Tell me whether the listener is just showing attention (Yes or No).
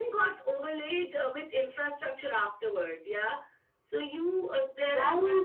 Yes